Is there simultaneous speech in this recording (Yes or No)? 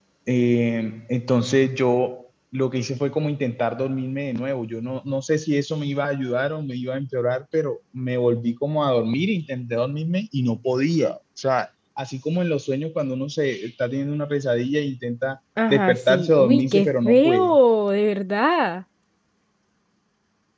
Yes